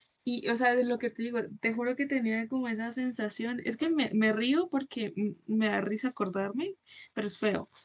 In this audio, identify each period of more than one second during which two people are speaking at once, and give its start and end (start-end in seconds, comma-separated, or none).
none